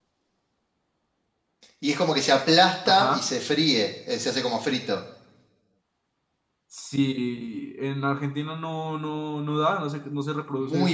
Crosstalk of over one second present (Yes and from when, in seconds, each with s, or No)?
No